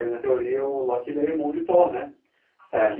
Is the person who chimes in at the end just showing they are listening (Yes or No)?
Yes